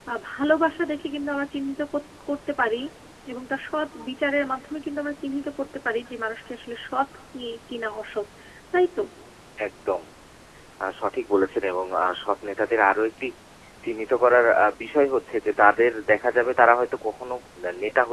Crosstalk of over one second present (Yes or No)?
No